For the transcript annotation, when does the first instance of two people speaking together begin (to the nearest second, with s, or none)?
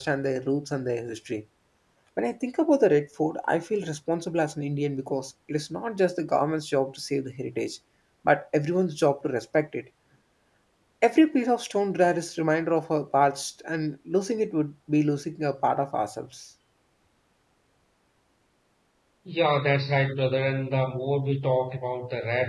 none